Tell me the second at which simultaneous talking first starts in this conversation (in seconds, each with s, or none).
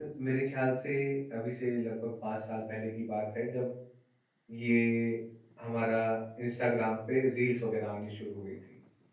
none